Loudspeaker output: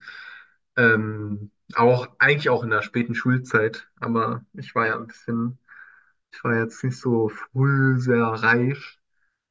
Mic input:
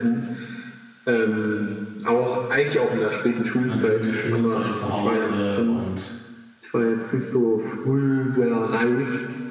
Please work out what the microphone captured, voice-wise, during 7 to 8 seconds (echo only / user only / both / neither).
echo only